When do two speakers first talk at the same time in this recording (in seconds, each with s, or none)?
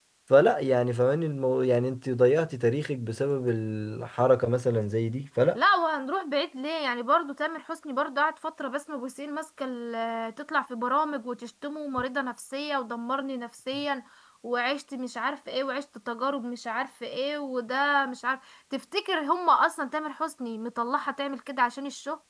none